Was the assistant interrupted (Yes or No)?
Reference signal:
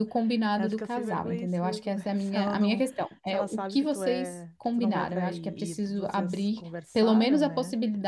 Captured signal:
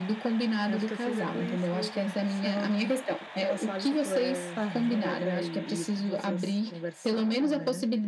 Yes